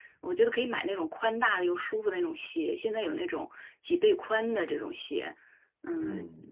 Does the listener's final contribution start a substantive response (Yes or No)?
No